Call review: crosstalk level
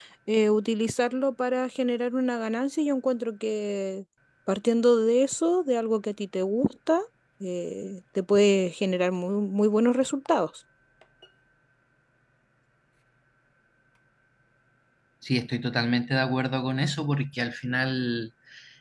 none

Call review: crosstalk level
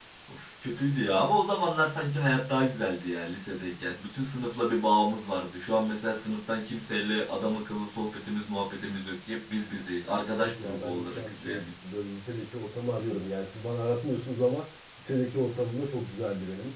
present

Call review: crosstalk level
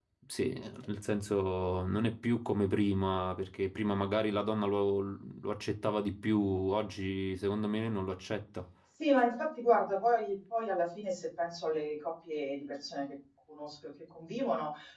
none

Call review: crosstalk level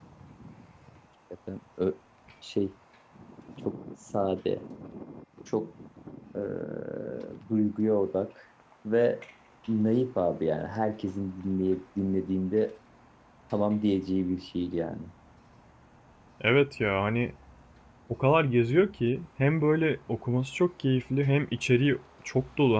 none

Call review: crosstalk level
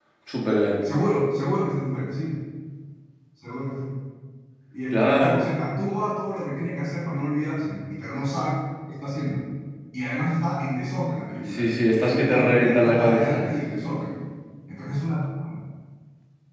present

